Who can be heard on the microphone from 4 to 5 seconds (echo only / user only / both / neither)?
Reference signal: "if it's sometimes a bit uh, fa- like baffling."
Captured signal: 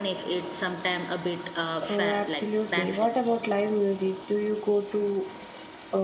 user only